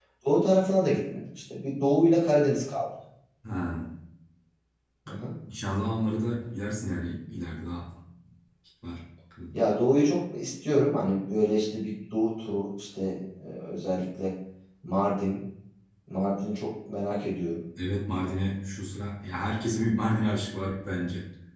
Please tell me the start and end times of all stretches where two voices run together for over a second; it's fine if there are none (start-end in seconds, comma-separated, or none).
none